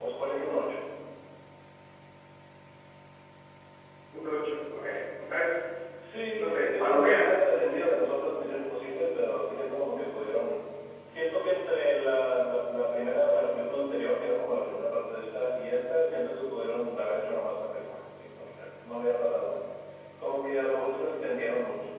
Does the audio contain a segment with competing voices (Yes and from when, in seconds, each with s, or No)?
Yes, from 6.4 s